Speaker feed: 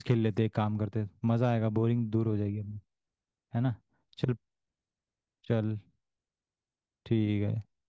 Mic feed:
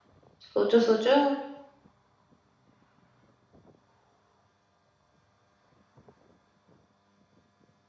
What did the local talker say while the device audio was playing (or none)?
सोचो सोचो